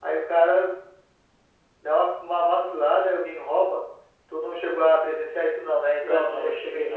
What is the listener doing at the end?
taking over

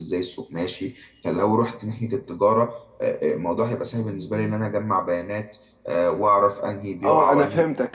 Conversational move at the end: taking over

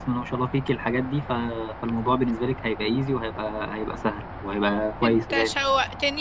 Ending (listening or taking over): taking over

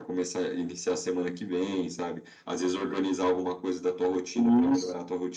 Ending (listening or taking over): listening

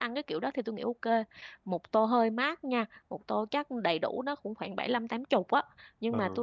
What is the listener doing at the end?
listening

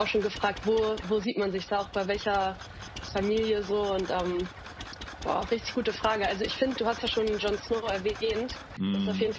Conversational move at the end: listening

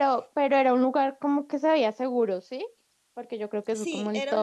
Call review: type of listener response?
taking over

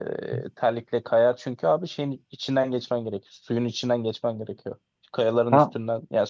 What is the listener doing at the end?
listening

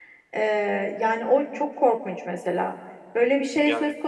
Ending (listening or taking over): listening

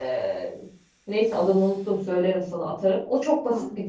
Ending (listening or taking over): listening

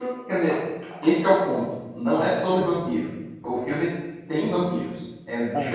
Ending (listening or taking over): listening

